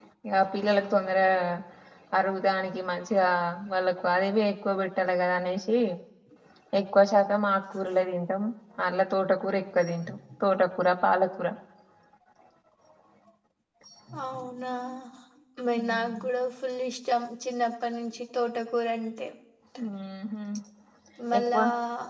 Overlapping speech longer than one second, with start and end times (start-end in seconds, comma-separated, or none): none